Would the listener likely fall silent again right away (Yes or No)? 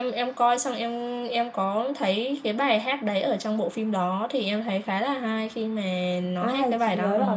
No